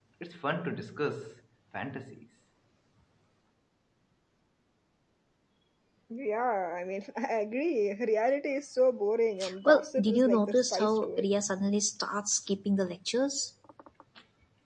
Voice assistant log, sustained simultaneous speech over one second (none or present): present